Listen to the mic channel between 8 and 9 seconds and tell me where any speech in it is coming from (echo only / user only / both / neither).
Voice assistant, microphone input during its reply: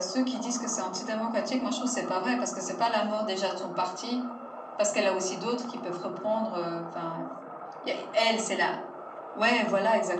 echo only